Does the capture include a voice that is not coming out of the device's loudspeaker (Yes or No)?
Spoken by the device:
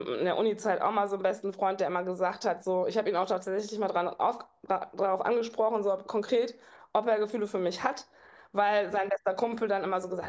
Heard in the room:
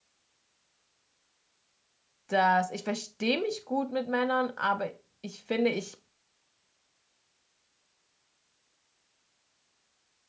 Yes